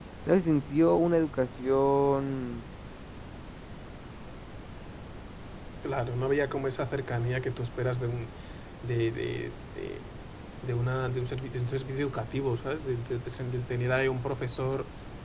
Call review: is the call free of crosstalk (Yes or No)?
Yes